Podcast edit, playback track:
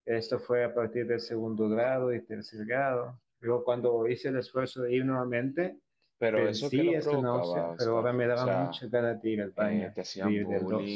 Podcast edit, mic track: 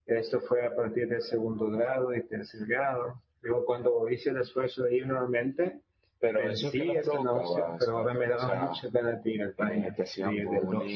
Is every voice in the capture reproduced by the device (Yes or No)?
Yes